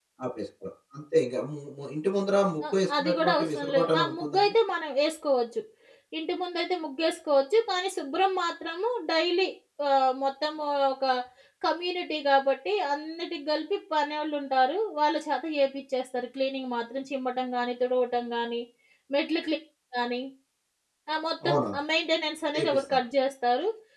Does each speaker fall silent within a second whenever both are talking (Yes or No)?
No